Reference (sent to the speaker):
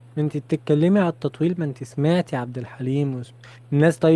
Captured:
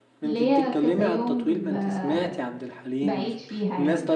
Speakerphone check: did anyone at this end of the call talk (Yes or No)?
Yes